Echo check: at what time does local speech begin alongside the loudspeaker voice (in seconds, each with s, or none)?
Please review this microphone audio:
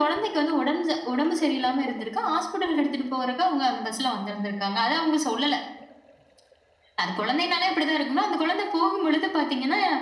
none